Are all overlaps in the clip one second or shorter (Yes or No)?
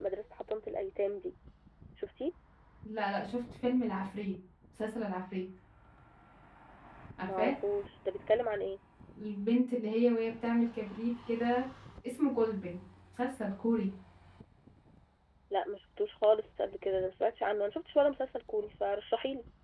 Yes